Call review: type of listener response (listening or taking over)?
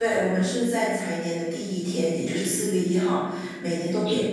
listening